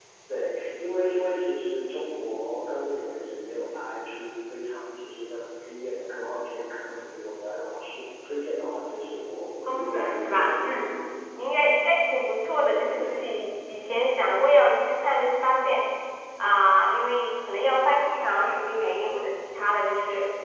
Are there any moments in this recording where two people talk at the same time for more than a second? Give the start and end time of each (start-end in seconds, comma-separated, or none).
9.7-10.9